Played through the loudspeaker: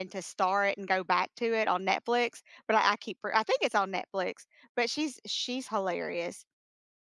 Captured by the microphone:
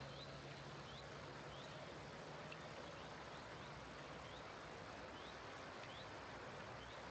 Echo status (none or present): none